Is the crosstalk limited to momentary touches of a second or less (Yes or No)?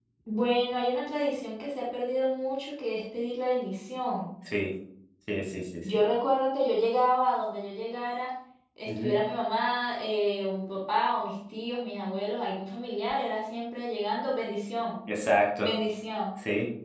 Yes